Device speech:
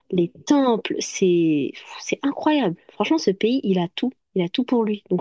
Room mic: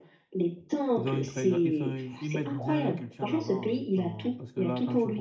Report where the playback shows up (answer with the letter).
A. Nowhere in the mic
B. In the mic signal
B